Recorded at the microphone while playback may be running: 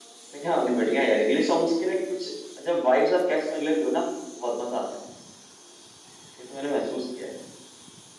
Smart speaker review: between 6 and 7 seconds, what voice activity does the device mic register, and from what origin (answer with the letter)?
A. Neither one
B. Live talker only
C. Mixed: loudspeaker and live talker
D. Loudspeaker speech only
B